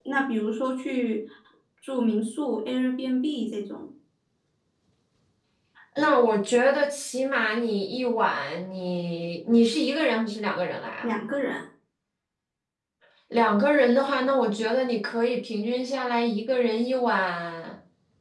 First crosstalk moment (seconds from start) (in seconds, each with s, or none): none